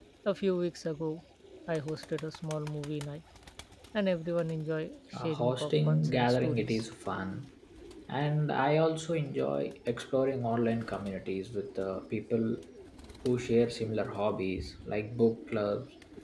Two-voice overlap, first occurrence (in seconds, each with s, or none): 5.1 s